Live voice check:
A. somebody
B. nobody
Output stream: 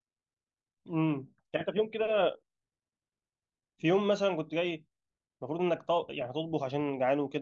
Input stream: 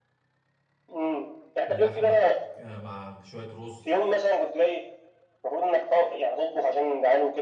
A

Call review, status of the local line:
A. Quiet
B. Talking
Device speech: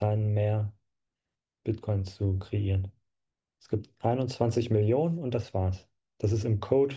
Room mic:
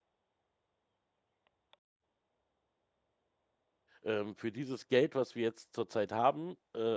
B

